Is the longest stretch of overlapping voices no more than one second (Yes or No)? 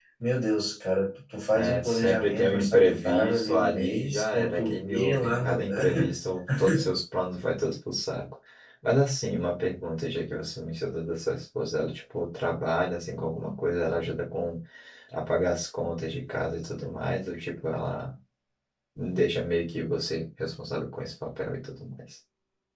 No